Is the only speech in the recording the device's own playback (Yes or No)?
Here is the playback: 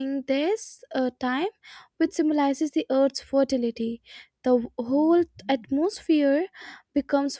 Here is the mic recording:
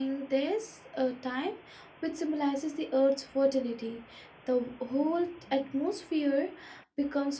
Yes